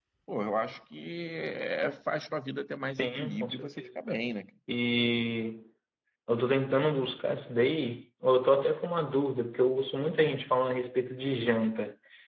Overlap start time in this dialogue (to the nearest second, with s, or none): 3 s